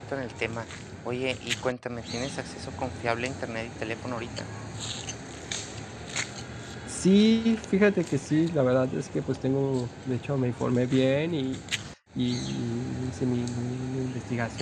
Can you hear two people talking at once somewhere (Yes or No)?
No